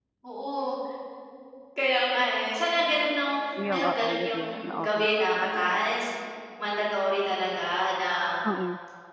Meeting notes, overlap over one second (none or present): present